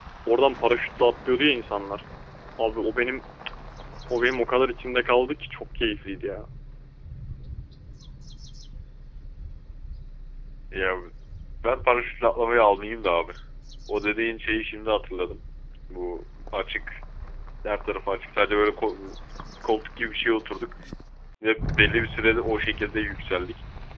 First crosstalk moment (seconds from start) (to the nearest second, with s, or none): none